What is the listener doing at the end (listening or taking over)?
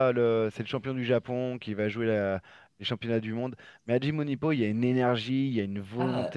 taking over